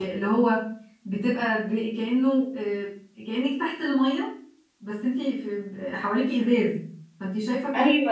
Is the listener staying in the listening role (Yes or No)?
No